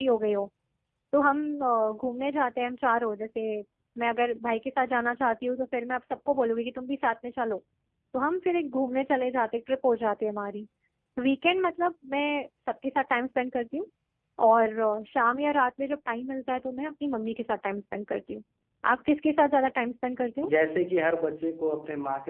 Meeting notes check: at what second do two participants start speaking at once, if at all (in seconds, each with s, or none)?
none